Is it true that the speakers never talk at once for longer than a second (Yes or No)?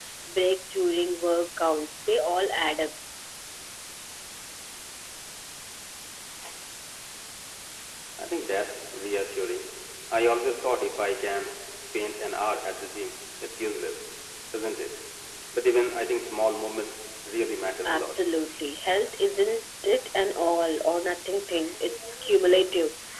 Yes